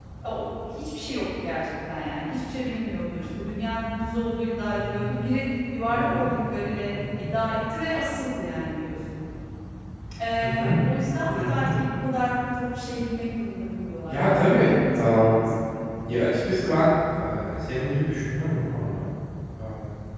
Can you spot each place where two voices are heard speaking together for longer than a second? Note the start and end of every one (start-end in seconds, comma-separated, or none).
14.1-15.5